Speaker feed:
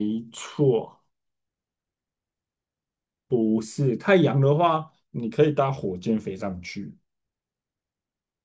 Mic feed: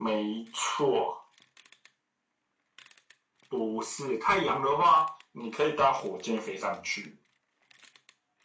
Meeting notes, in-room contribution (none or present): none